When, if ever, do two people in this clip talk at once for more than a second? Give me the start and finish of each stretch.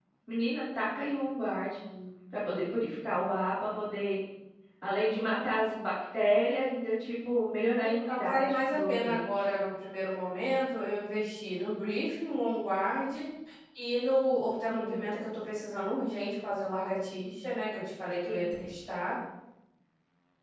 7.8-9.5

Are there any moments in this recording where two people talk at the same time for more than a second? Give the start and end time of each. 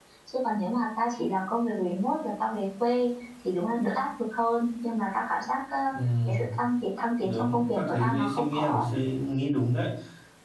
7.2-8.9

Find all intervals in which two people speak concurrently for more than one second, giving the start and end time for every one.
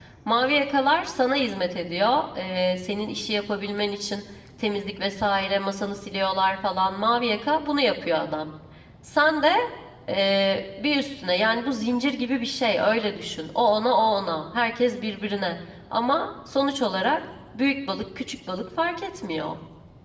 none

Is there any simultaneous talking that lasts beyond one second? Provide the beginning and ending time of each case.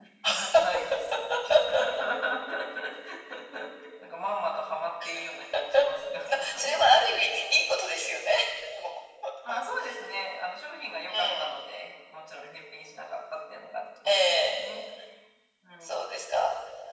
none

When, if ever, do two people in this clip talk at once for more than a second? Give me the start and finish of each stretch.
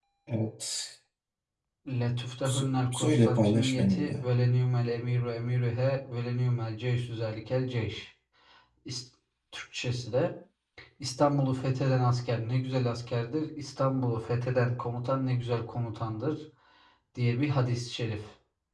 2.4-4.2

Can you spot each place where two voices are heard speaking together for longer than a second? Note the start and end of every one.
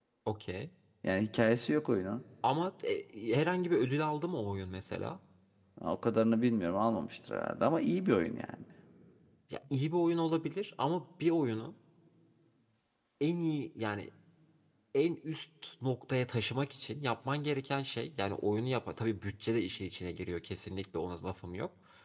none

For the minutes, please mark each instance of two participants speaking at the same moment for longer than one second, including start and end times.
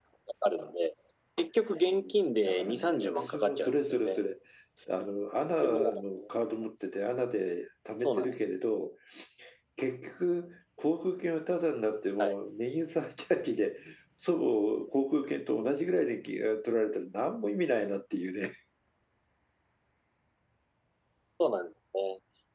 2.4-4.2

